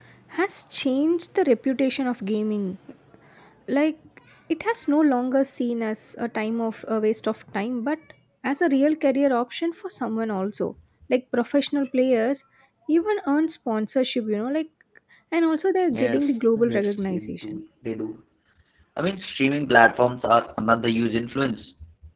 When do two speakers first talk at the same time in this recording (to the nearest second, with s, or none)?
16 s